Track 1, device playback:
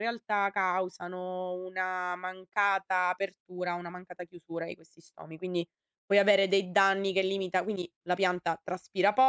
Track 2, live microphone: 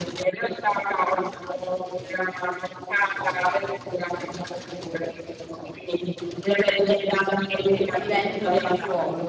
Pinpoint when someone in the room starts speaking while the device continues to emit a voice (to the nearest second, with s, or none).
8 s